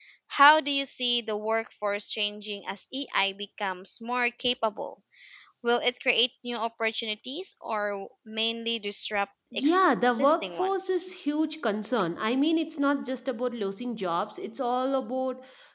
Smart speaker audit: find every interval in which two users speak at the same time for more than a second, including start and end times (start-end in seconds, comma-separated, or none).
9.5-11.0